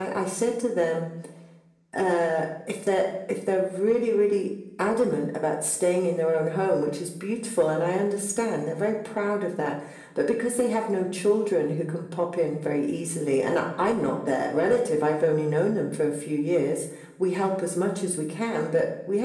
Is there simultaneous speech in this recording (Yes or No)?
No